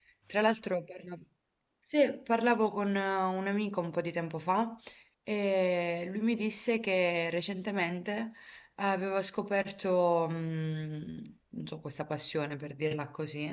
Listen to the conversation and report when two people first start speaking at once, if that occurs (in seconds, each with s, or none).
none